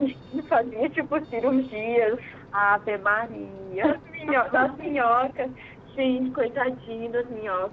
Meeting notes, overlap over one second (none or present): none